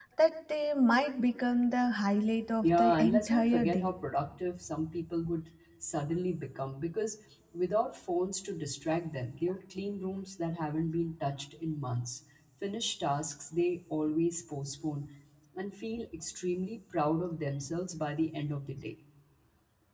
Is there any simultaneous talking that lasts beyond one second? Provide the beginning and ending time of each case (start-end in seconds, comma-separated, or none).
2.6-3.9